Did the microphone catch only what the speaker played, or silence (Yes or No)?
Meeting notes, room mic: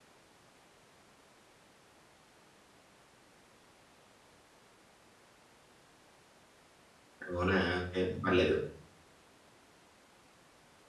No